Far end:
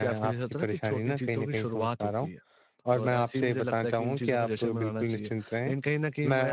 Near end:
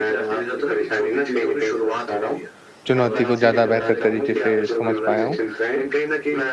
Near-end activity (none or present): present